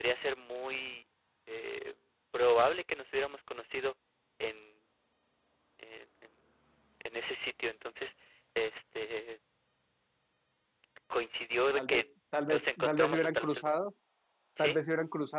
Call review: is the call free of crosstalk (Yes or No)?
No